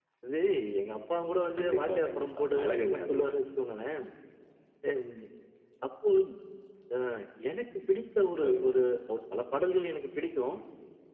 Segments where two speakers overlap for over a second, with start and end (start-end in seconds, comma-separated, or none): 1.6-3.3